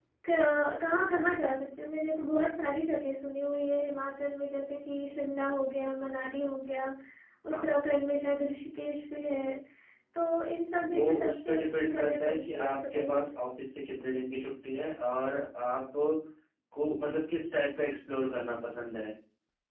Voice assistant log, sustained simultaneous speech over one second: present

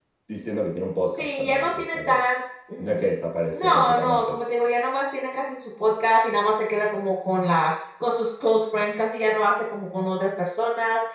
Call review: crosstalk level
present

